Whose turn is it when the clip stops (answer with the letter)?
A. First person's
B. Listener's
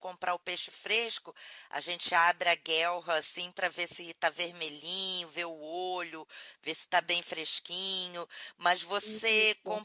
A